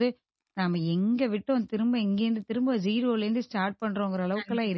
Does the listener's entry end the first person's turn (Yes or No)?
Yes